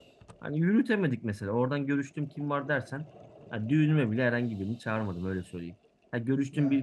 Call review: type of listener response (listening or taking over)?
listening